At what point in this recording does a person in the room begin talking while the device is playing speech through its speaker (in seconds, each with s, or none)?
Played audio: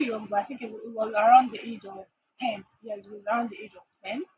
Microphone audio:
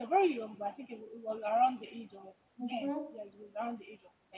2.6 s